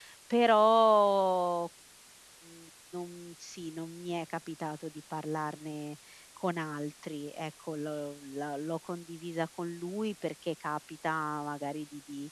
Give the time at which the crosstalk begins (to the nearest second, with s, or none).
none